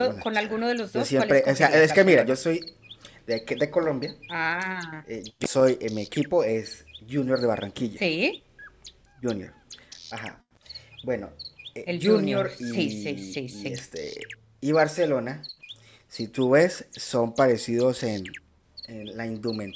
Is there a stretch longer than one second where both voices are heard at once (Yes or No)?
Yes